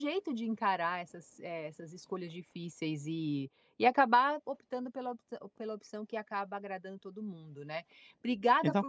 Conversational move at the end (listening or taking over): listening